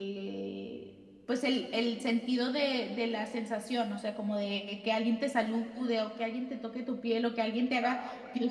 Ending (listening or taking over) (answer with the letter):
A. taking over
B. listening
B